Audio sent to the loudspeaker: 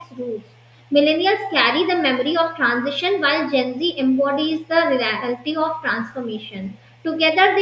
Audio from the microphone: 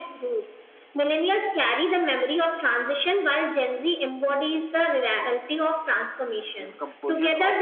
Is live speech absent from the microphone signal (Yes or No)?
No